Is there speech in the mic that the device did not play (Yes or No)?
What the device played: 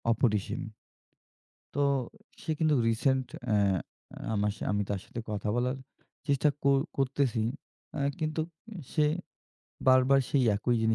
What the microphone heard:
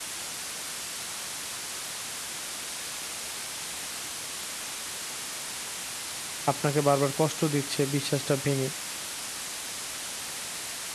Yes